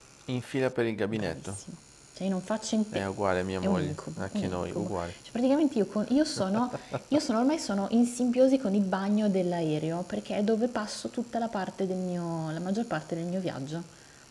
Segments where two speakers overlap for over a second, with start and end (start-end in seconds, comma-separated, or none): 3.6-4.9